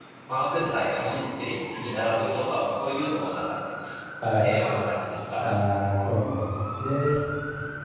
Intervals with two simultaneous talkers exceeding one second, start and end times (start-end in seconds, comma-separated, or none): none